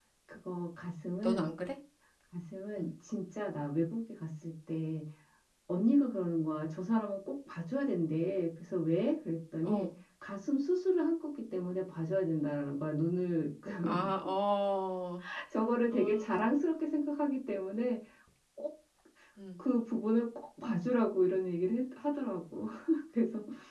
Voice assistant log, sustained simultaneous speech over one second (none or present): none